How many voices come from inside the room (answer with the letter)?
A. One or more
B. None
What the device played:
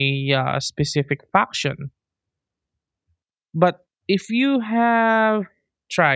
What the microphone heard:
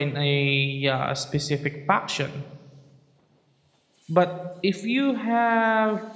B